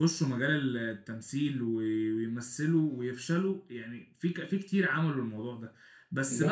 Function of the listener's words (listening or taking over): listening